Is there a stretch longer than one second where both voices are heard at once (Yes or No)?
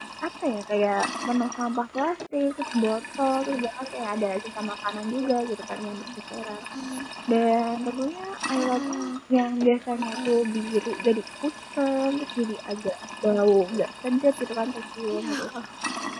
No